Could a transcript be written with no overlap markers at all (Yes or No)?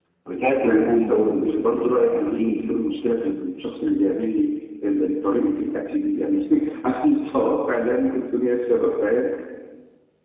No